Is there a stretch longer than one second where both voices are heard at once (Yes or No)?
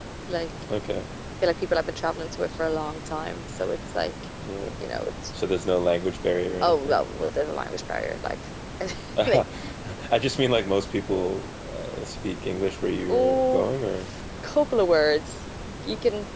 No